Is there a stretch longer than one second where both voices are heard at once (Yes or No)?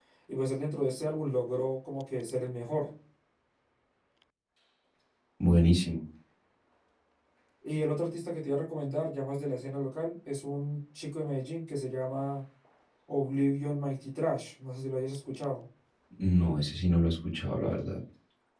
No